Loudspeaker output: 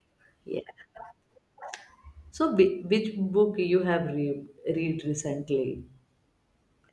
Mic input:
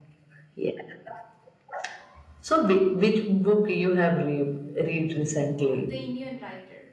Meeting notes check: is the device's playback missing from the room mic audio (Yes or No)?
No